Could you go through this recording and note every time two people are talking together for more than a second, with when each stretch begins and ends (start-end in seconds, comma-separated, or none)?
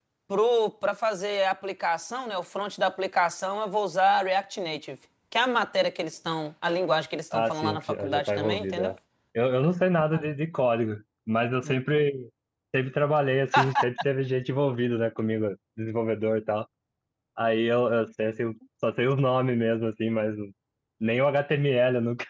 7.3-8.9